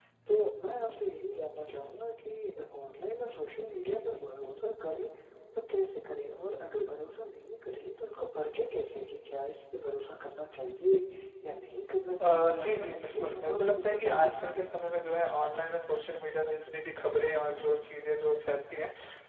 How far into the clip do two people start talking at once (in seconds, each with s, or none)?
12.2 s